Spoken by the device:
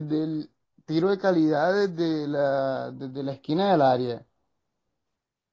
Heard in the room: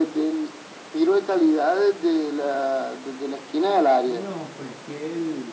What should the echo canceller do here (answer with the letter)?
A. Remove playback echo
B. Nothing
A